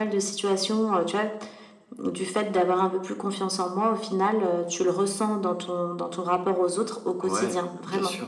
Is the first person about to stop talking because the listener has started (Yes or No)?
Yes